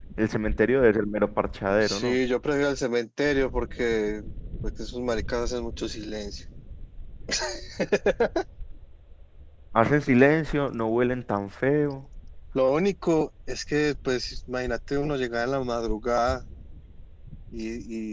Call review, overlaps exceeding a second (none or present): none